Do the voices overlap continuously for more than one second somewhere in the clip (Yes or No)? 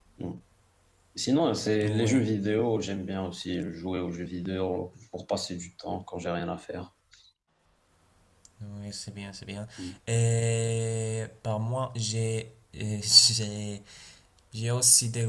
No